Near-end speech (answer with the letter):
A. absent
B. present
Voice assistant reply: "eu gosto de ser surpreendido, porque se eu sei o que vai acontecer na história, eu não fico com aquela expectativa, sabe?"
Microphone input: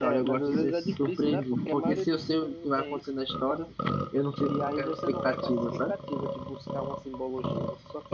B